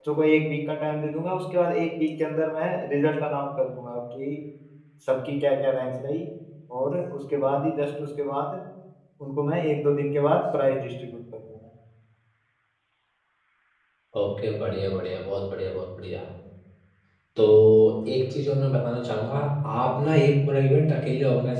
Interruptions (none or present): none